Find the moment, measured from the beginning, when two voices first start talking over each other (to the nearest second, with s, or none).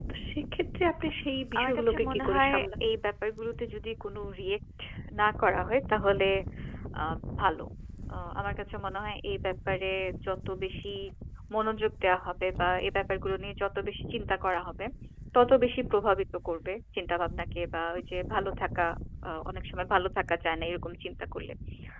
2 s